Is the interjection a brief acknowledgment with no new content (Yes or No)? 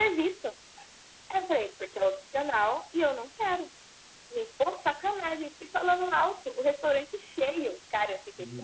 Yes